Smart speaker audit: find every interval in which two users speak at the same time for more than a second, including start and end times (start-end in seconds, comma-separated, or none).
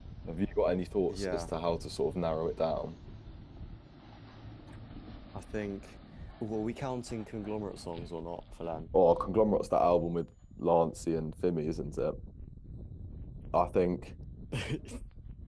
none